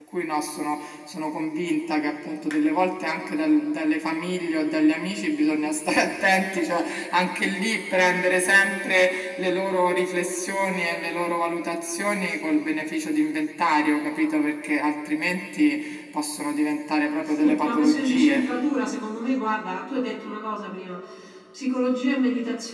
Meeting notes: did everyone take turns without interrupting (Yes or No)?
No